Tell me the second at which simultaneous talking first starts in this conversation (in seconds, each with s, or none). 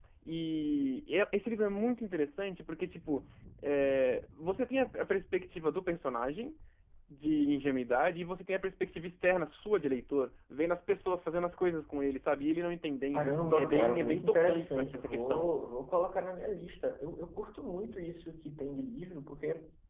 13.1 s